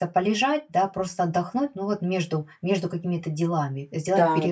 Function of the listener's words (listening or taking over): taking over